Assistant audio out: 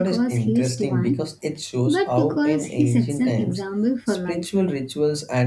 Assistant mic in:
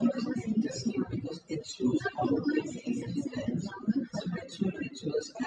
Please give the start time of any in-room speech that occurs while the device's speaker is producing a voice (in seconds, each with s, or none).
none